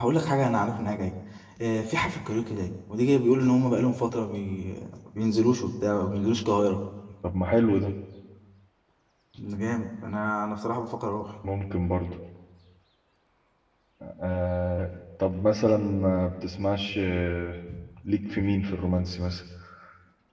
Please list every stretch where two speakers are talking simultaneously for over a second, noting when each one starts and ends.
none

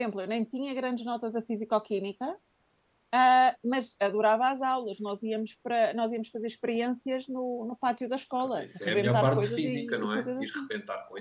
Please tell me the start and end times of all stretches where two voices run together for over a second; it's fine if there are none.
8.6-10.6

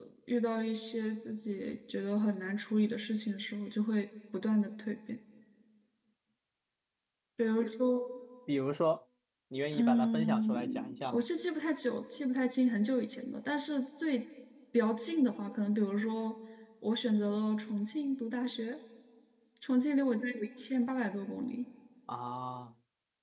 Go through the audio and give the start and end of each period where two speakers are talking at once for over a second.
9.7-11.2

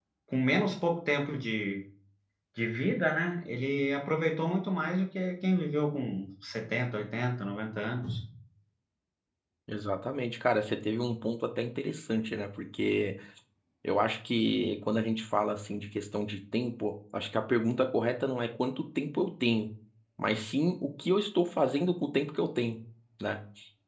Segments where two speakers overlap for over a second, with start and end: none

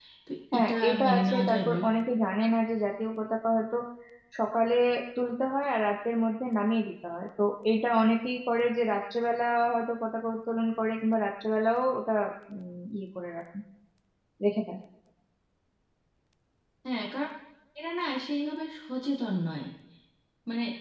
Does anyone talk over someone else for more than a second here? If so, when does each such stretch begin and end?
0.5-1.8

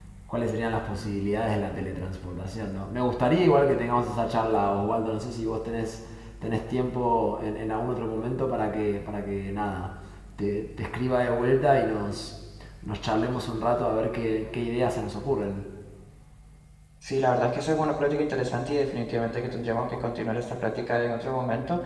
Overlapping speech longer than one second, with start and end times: none

